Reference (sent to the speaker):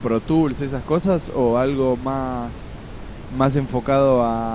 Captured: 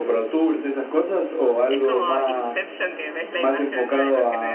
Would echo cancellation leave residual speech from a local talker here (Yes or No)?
Yes